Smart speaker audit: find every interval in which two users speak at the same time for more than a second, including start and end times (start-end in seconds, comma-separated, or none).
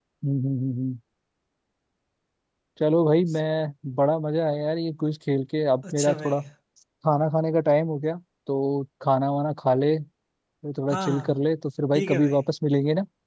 none